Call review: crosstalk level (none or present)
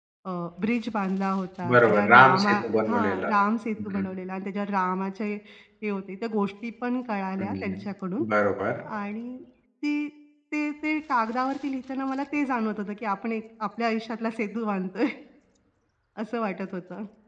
present